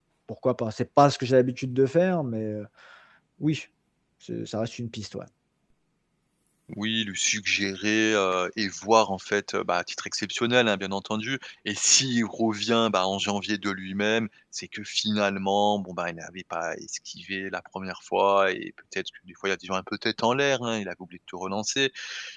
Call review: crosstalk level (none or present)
none